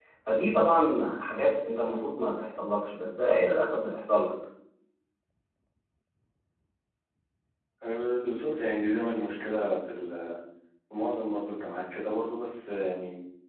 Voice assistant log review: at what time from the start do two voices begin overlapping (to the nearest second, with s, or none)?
none